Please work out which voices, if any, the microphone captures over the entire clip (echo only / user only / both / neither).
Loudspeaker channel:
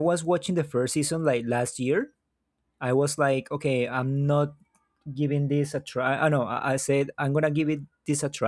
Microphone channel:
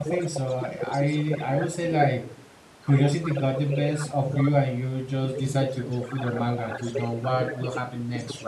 both